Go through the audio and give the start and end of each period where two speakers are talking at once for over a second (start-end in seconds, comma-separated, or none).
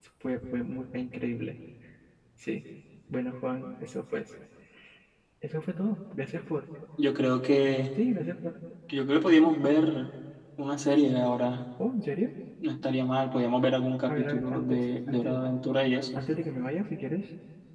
14.1-15.7